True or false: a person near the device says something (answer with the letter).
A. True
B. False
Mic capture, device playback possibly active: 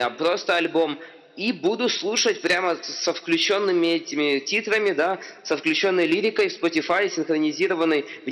B